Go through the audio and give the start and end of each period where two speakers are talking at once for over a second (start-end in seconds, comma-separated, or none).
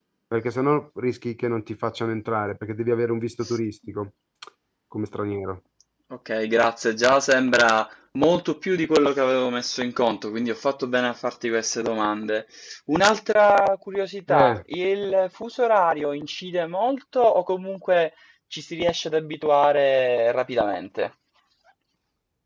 none